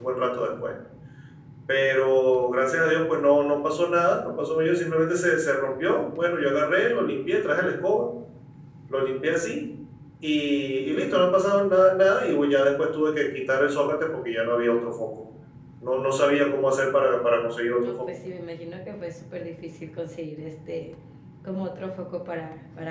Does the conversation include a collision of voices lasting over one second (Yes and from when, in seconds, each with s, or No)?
No